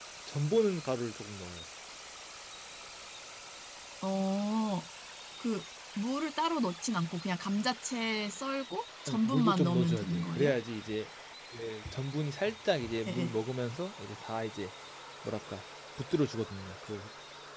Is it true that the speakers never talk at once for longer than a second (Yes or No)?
No